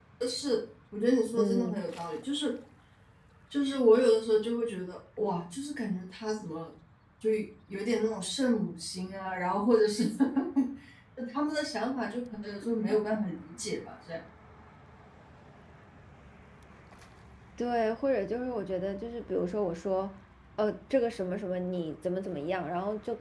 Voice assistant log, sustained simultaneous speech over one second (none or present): none